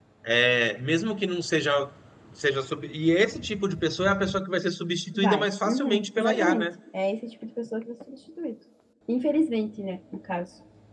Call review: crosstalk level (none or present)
present